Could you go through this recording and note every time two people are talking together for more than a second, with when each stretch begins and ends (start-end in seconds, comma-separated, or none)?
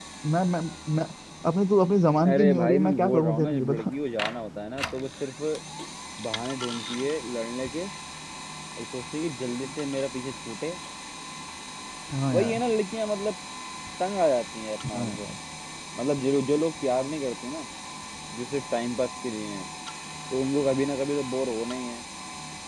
2.3-3.9